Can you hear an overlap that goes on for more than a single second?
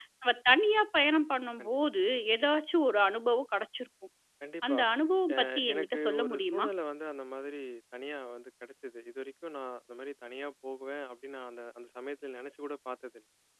Yes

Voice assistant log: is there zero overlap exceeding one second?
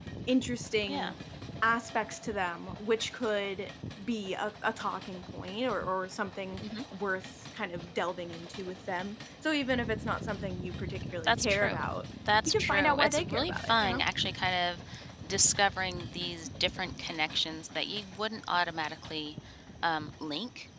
No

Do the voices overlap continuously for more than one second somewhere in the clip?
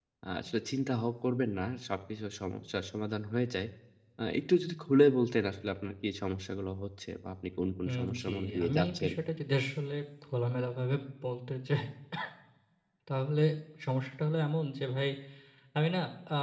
Yes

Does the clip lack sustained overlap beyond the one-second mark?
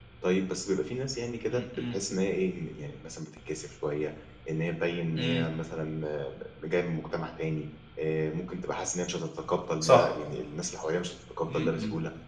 Yes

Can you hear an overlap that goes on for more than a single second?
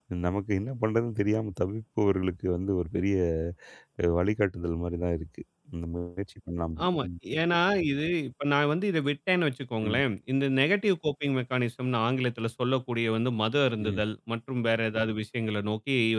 No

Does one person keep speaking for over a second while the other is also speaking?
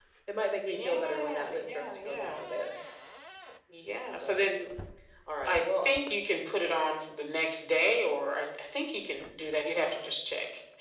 Yes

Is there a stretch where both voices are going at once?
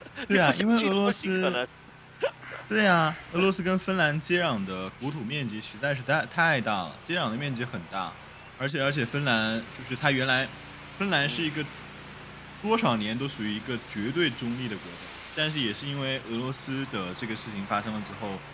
Yes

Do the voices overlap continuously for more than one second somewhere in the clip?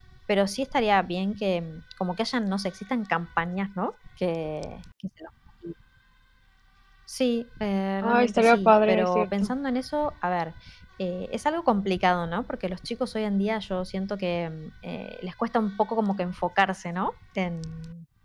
Yes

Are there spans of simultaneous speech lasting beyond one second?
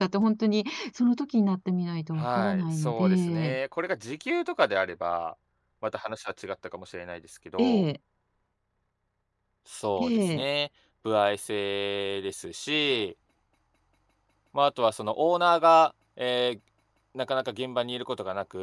Yes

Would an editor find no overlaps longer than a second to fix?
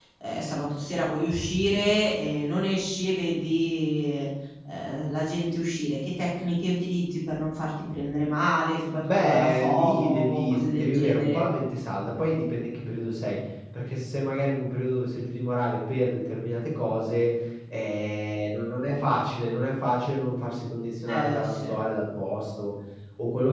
No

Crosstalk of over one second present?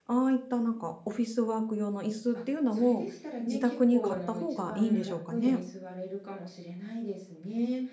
Yes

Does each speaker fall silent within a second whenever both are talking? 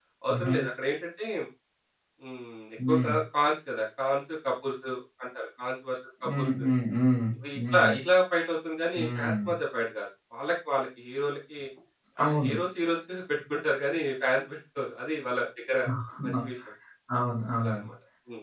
Yes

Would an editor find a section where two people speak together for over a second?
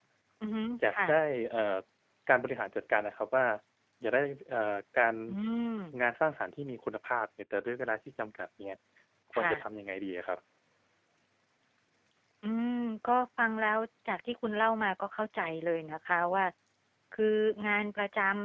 No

